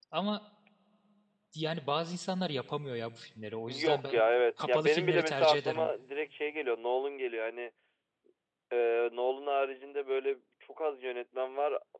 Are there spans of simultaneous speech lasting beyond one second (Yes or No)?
Yes